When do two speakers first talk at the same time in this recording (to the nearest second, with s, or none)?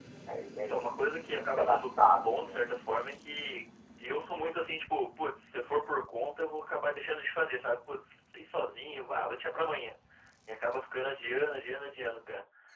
1 s